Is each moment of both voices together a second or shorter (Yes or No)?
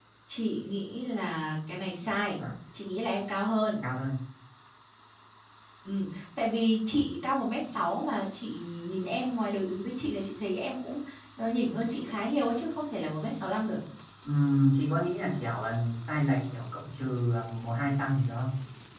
Yes